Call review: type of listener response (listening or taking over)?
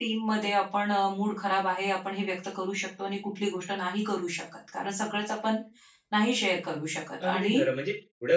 taking over